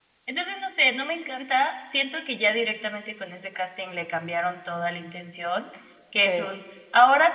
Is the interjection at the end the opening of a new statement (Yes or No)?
No